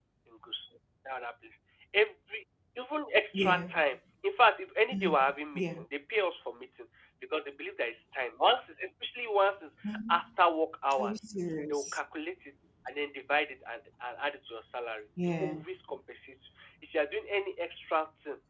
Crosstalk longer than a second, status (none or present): none